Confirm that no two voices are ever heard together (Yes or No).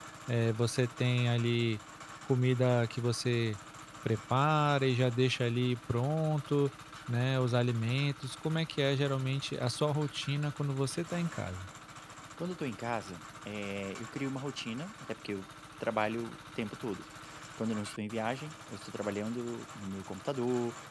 Yes